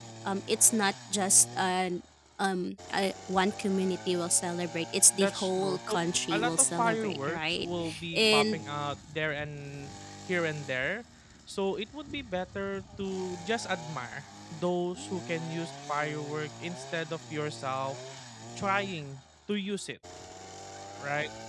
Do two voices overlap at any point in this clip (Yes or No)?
Yes